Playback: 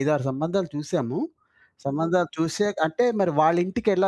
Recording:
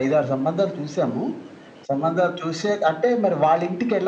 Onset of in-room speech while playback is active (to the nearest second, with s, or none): none